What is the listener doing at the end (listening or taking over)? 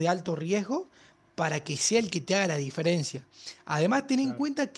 listening